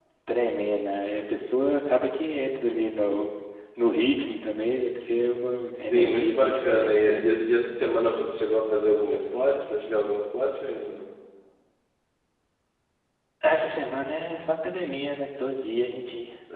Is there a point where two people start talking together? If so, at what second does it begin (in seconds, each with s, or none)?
5.4 s